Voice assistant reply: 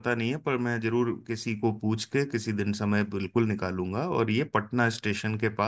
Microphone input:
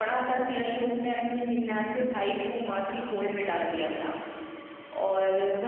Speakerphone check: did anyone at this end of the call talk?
Yes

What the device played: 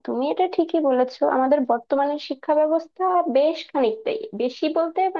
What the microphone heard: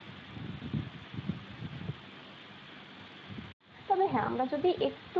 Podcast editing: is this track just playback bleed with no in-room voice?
No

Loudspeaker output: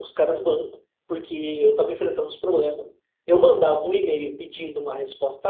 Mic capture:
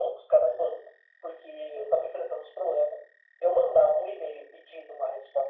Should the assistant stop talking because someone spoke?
No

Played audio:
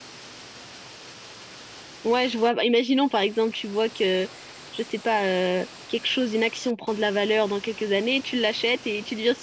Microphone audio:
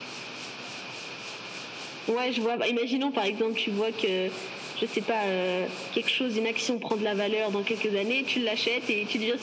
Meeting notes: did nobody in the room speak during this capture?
Yes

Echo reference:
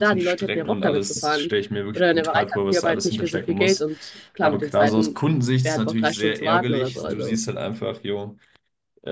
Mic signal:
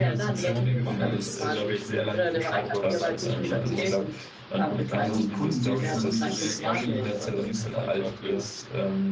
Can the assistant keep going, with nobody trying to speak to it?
No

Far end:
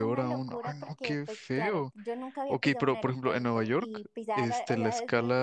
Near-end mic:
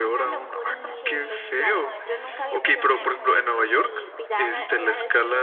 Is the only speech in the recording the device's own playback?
No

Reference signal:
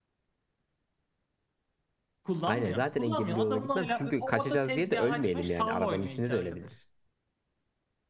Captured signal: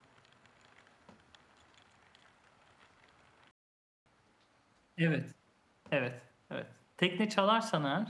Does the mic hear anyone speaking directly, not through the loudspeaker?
Yes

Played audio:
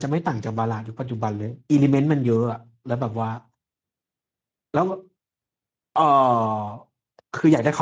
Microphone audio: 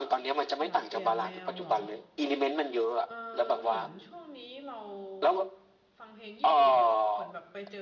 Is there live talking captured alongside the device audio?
Yes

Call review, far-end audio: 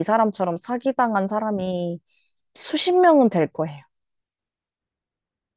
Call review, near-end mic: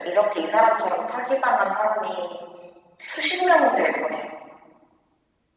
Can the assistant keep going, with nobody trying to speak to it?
Yes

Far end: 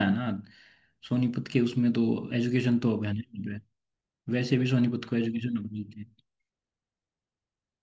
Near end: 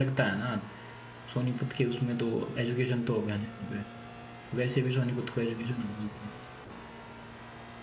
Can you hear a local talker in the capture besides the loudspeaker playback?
No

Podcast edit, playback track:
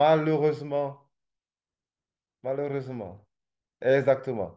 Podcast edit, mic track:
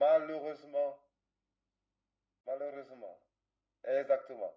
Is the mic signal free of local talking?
Yes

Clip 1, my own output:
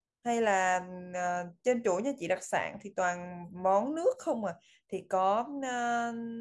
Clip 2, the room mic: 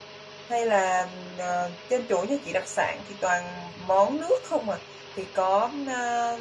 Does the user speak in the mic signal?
No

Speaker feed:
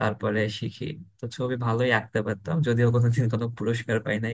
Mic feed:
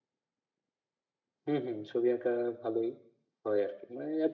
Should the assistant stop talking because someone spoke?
Yes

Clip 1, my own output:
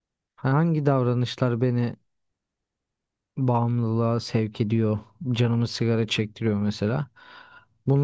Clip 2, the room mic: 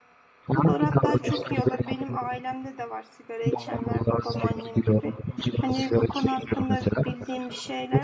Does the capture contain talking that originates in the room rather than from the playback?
Yes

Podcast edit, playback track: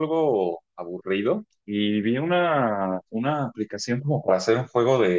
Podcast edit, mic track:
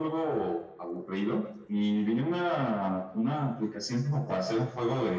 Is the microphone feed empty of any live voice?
Yes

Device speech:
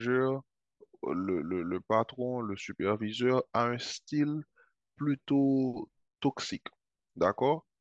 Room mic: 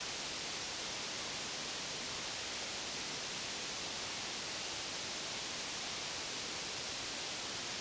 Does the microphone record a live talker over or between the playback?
No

